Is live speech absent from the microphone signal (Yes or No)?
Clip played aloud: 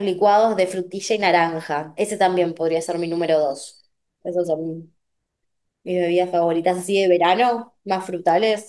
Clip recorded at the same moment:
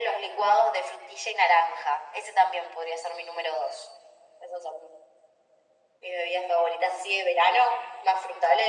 Yes